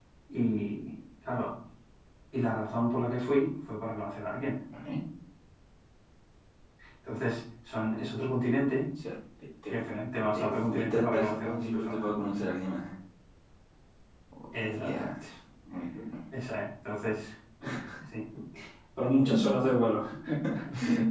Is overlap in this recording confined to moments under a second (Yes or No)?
No